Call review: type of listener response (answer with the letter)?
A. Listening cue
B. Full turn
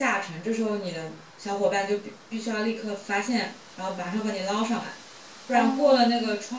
A